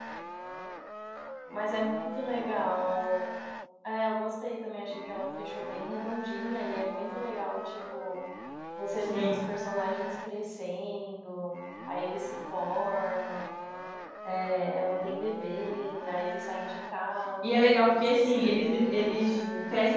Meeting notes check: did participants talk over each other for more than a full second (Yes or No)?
Yes